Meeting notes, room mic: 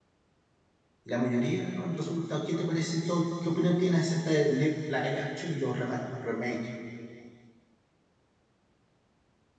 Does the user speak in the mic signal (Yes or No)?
Yes